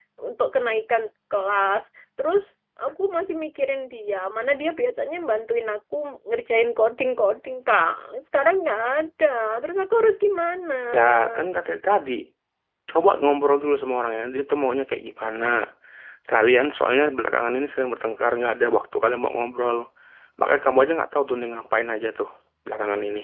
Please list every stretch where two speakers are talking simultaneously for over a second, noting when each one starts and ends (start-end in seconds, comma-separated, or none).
none